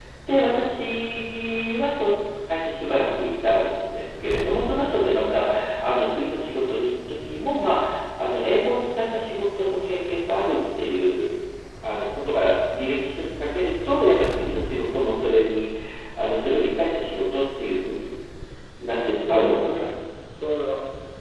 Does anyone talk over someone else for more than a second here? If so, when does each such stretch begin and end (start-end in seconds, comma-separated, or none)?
none